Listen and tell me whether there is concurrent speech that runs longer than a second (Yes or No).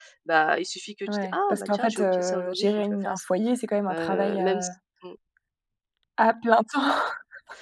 Yes